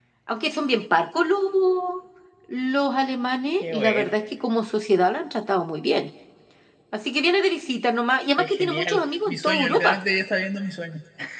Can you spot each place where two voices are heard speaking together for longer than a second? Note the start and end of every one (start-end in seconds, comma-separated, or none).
8.4-10.0